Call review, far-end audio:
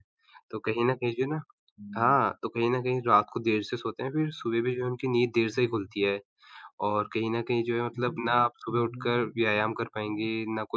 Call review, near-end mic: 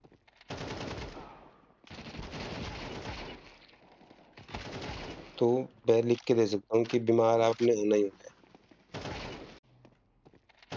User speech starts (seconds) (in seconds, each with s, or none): 5.4 s